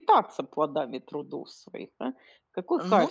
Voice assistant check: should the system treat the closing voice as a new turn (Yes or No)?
No